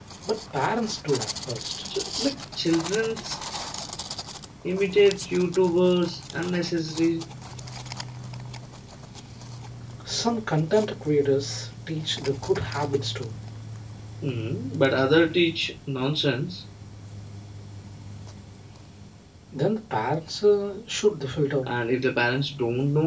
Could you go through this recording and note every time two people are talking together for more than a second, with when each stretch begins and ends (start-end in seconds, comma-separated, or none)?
none